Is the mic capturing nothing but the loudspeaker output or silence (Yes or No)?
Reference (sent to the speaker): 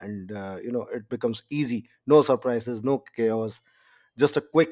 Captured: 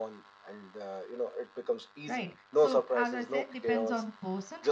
No